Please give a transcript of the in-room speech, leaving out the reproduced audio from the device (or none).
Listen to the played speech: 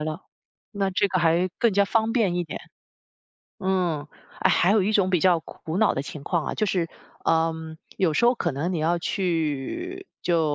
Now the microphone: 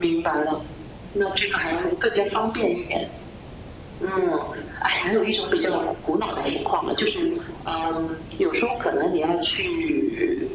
none